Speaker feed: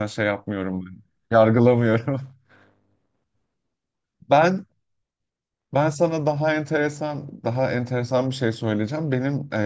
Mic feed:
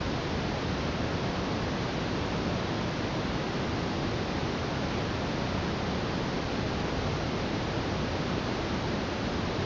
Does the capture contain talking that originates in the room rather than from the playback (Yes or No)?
No